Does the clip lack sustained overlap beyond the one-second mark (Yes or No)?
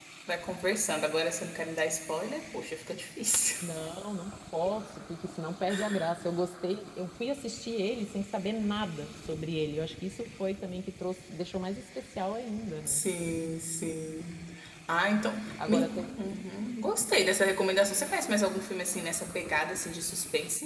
Yes